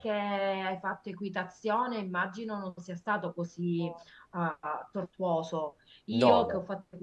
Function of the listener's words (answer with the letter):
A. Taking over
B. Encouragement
B